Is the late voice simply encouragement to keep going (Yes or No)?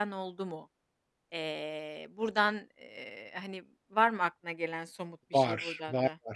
No